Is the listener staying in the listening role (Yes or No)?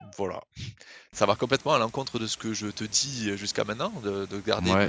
No